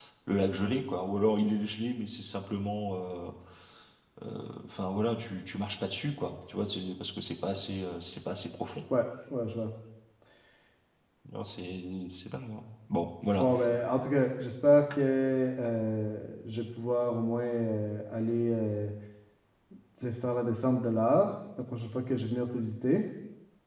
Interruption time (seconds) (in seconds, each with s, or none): none